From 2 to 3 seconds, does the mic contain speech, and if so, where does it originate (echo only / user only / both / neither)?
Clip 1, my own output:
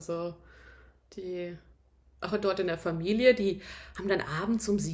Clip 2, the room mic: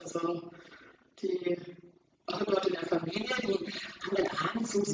echo only